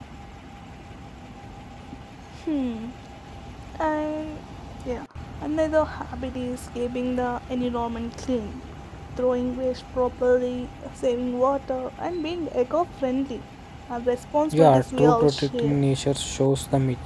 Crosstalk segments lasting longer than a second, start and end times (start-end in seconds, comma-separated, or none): 14.5-15.8